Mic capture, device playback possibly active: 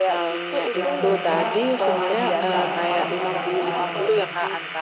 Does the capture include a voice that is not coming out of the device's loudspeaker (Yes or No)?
Yes